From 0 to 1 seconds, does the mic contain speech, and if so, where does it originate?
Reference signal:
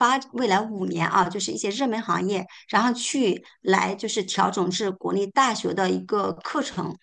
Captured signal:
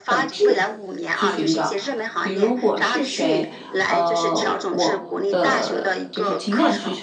both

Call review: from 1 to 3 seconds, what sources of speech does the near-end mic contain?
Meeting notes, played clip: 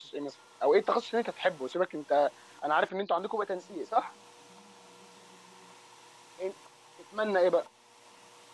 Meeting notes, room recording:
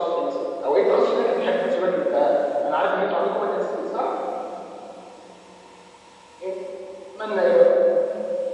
echo only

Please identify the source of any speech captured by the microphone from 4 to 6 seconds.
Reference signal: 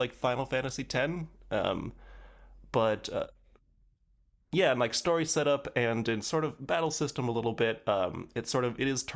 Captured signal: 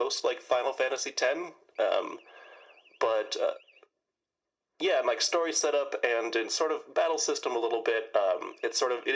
echo only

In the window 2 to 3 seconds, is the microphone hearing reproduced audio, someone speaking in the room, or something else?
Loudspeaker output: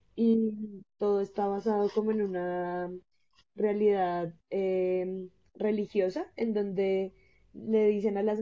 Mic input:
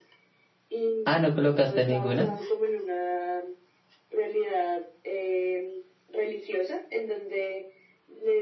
both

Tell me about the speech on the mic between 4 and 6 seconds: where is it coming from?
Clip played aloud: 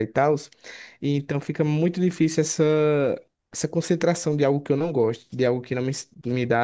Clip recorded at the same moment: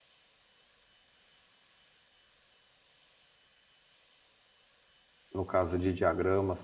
user only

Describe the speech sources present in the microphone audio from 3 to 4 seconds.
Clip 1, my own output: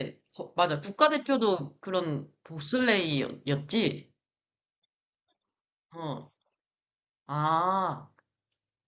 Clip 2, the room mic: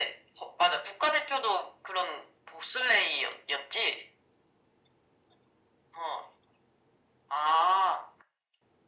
echo only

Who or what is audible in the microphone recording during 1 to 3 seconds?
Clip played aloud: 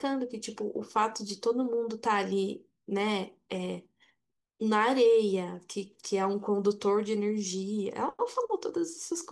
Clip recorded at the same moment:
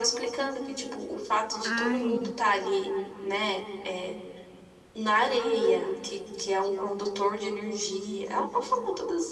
both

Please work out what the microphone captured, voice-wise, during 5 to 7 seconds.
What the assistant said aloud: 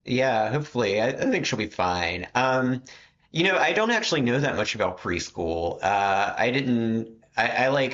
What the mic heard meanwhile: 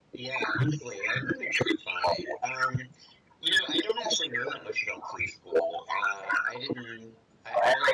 echo only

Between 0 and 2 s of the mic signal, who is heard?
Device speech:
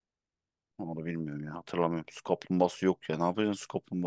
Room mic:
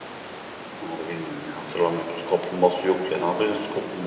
echo only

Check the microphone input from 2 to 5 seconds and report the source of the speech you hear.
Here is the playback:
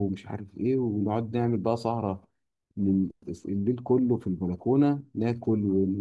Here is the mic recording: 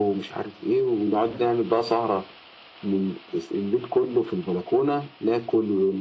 echo only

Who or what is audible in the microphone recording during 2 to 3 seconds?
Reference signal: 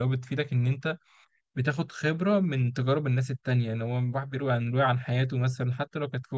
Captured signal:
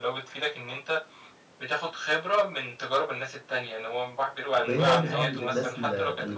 echo only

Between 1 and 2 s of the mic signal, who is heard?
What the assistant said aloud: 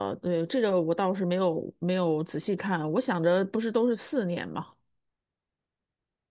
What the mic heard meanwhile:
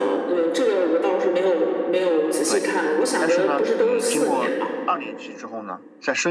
echo only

